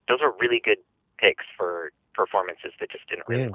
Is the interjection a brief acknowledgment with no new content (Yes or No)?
Yes